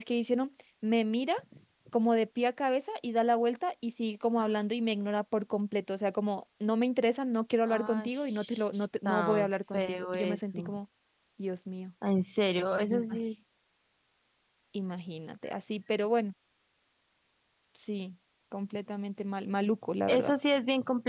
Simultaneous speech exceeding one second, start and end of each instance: 7.7-10.8

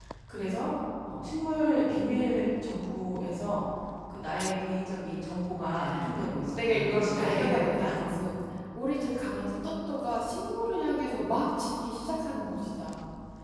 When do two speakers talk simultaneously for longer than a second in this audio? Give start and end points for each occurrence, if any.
6.5-8.0

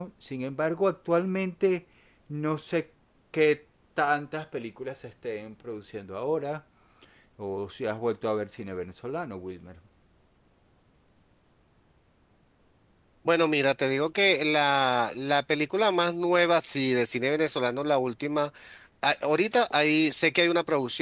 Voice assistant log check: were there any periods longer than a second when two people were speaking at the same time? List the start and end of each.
none

